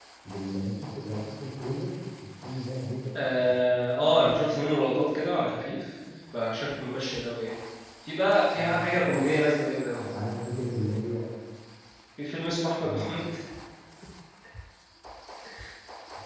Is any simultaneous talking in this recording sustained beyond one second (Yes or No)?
No